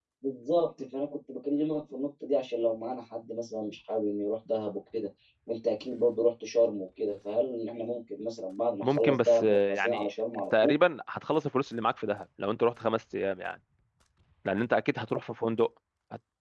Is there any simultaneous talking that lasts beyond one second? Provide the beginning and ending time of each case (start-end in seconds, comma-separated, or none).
8.8-10.1